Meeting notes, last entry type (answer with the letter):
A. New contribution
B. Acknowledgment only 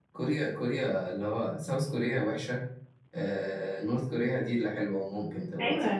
A